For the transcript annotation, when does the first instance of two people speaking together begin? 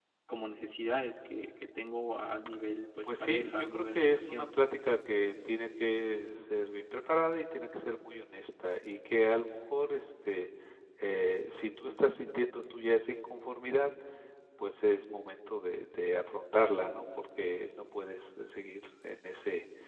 3 s

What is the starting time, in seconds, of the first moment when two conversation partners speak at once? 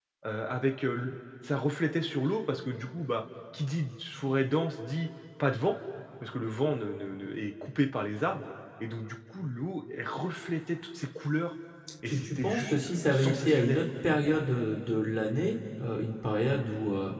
12 s

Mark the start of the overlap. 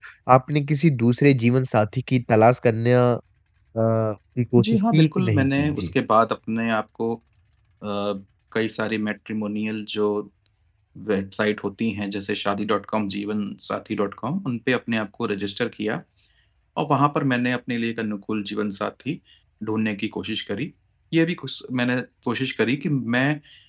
5 s

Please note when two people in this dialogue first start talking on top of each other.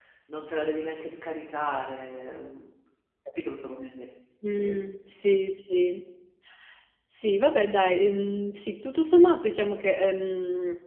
none

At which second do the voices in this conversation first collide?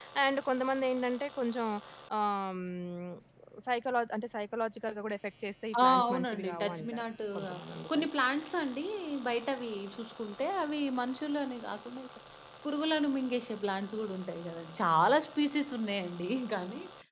6 s

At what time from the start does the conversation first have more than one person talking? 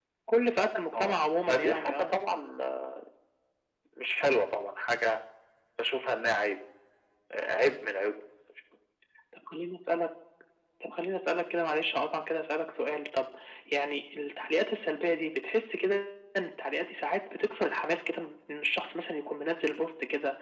1 s

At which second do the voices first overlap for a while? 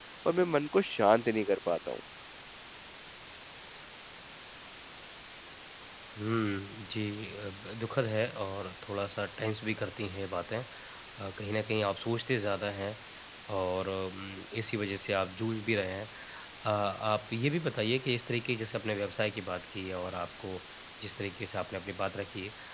none

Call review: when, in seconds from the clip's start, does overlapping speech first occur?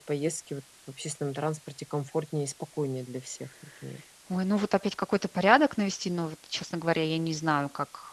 none

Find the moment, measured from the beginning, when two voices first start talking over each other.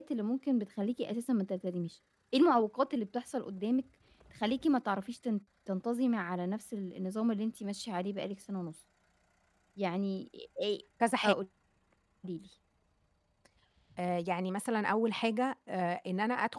none

